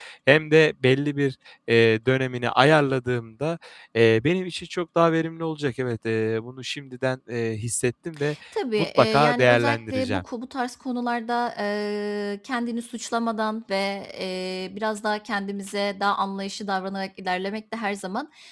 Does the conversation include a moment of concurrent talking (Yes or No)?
Yes